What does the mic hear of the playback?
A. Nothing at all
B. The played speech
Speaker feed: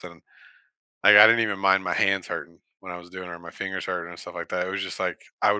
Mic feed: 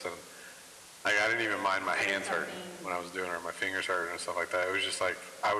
B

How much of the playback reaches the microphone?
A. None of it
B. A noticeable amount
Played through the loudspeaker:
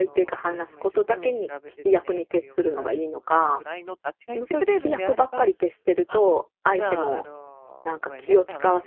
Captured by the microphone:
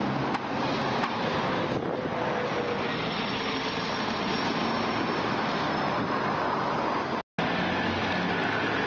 A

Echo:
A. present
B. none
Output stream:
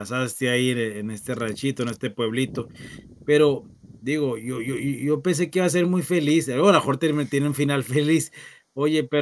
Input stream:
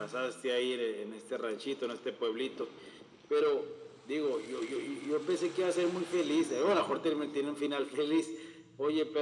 A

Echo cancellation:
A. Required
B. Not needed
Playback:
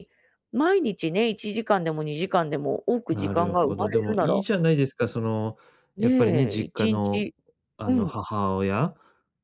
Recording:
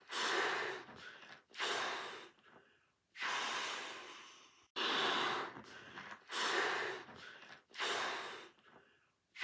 B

